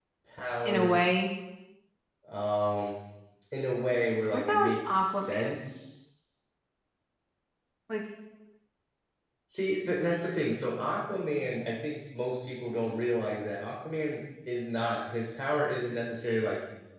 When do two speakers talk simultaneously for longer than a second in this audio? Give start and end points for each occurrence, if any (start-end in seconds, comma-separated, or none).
4.3-5.5